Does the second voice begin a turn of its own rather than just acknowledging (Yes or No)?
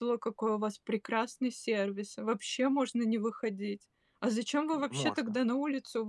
No